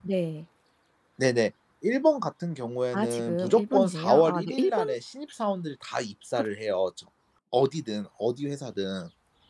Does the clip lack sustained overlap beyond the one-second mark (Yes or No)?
No